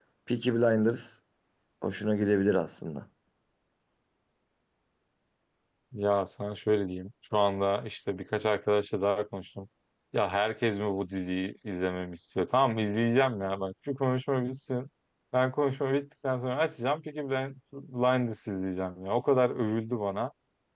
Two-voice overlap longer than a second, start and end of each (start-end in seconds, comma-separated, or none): none